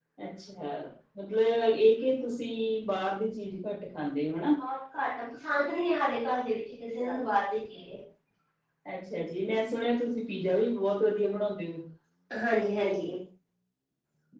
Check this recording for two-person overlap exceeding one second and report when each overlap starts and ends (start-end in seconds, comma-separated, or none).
none